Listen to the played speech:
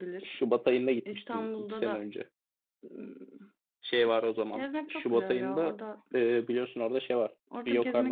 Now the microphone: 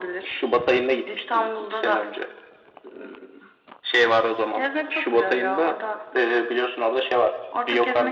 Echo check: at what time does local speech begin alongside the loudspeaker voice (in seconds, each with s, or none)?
none